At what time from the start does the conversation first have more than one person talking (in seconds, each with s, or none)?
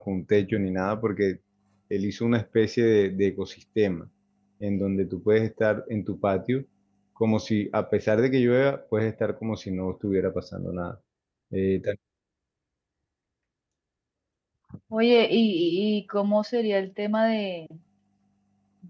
none